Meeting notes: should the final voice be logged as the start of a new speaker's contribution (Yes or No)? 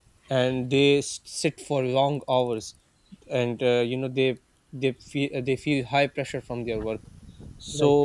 No